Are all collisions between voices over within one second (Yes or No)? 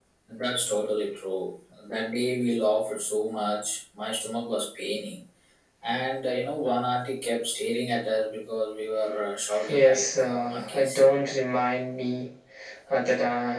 No